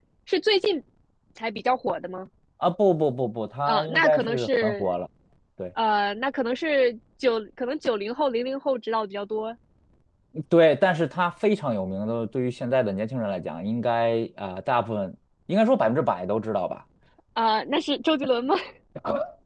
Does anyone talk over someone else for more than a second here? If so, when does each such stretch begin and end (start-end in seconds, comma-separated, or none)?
3.6-4.9